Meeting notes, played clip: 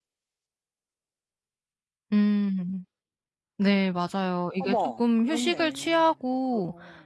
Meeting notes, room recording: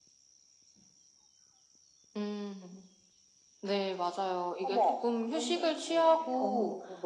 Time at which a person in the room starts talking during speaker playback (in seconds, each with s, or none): 5.9 s